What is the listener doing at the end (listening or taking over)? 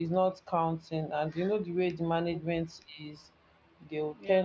listening